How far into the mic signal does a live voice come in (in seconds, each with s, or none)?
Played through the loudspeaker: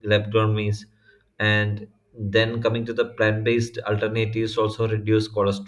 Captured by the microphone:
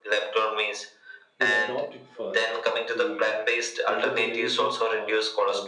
1.4 s